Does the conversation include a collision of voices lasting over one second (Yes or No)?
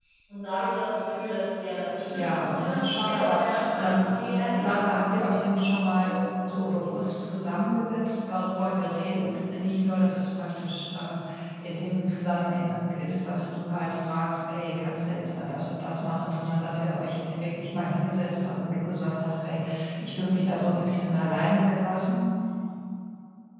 Yes